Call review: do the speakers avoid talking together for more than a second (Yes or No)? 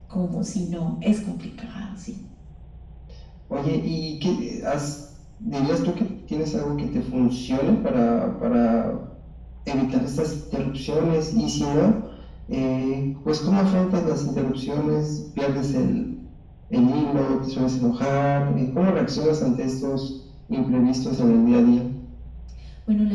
Yes